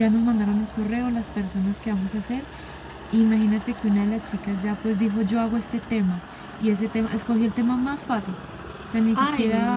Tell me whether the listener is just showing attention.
No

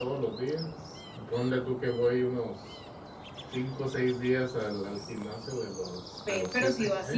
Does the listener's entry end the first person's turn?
Yes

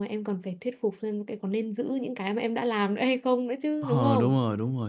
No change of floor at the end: No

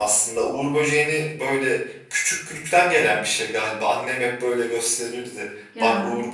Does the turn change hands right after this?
No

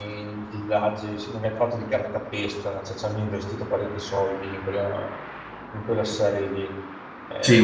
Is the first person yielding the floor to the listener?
Yes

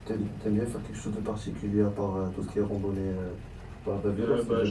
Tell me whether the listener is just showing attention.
No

